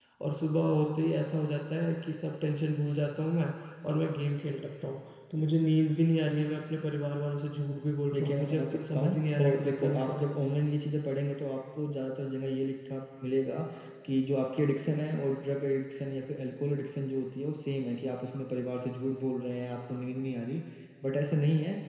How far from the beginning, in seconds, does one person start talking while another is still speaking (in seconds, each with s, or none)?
8.1 s